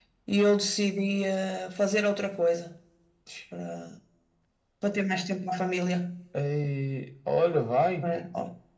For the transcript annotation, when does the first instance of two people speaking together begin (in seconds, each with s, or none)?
none